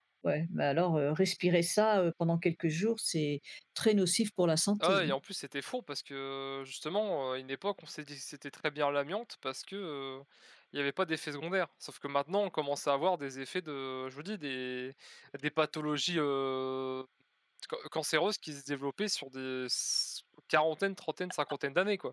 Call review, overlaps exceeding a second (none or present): none